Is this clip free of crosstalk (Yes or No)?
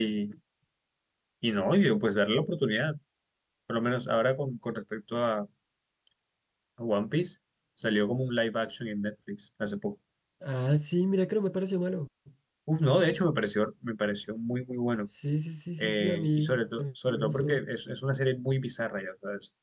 No